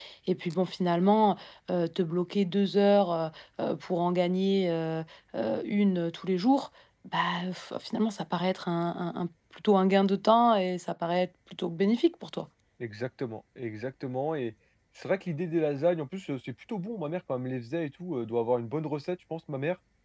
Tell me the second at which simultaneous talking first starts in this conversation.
none

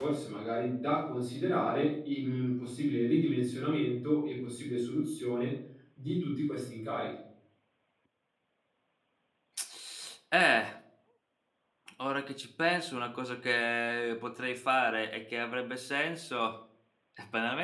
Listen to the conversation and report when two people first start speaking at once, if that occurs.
none

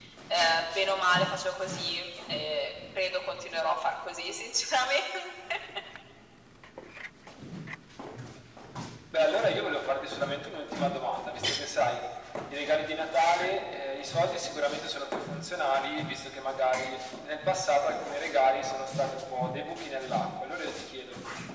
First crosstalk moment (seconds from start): none

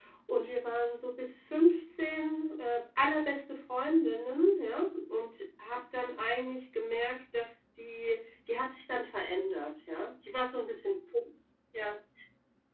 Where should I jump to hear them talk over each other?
none

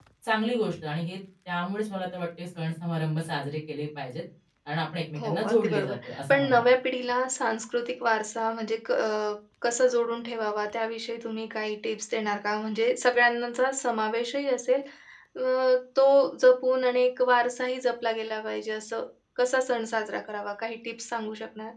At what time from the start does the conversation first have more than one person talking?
5.2 s

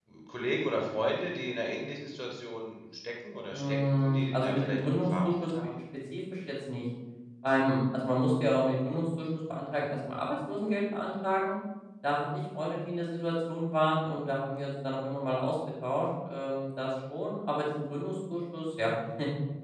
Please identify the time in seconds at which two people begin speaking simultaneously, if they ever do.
3.5 s

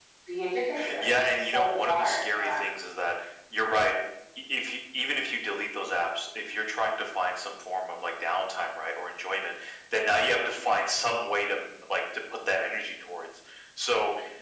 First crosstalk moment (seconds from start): 1.0 s

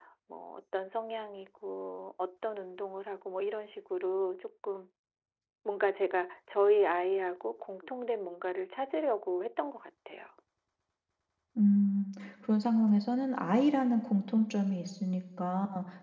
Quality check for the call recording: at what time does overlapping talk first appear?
none

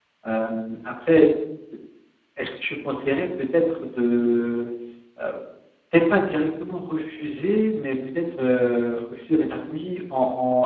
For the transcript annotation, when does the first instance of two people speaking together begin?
none

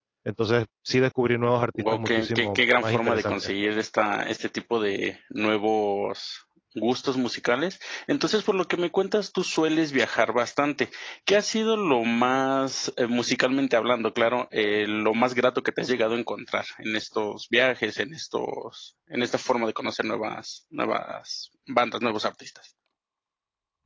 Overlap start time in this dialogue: 1.8 s

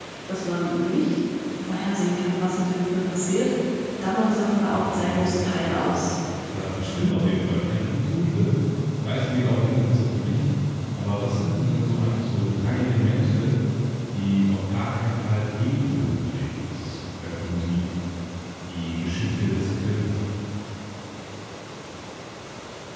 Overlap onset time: 4.7 s

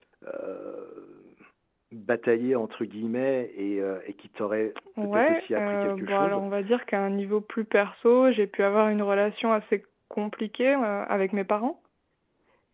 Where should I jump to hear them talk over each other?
5.0 s

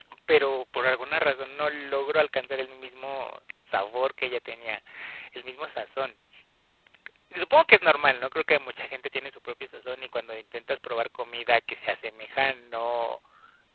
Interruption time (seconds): none

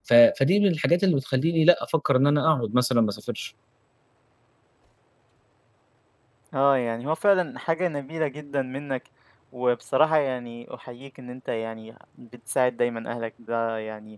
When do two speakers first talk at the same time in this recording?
none

